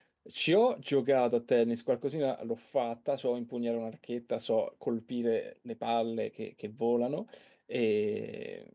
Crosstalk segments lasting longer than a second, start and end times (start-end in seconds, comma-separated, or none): none